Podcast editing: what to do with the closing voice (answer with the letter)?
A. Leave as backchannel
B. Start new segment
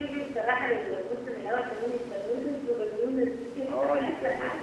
B